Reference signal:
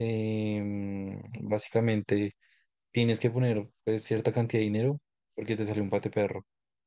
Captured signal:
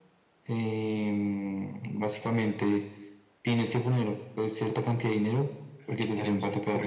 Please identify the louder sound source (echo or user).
echo